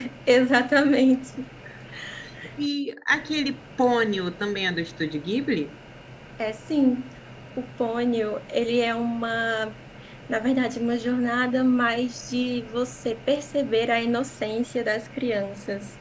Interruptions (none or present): none